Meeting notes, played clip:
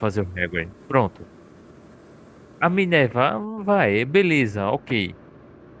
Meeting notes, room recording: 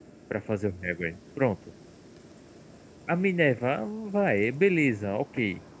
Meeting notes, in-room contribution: none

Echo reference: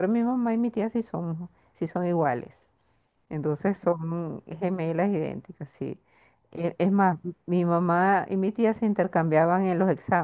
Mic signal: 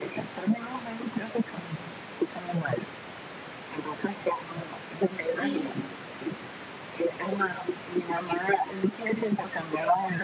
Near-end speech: present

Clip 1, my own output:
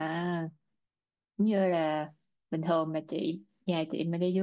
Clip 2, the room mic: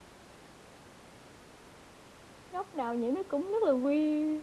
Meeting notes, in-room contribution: present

